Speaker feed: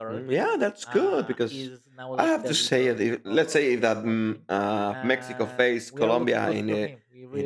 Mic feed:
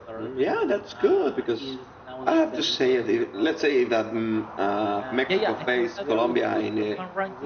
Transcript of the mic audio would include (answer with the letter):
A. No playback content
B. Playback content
B